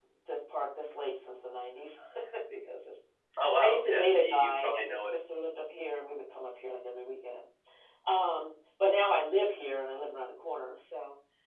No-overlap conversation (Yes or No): No